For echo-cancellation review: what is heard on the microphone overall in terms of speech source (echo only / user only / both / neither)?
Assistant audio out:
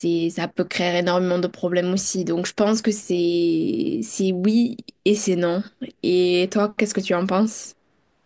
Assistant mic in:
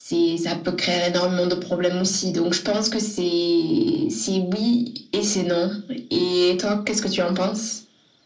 echo only